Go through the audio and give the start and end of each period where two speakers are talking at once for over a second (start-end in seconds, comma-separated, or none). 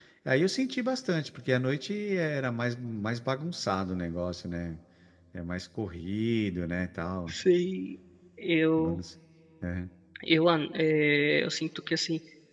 none